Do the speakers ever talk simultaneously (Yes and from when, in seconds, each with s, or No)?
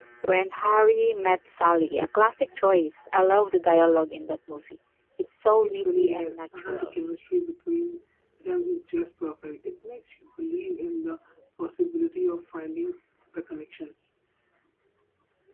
Yes, from 5.6 s